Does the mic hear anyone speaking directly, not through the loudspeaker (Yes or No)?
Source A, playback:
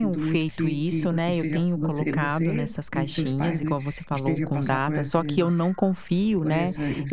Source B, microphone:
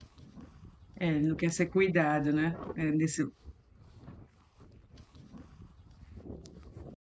Yes